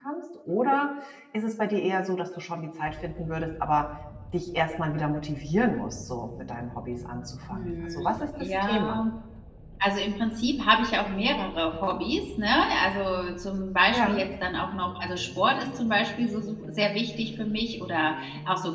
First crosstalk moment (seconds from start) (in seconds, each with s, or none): 7.5 s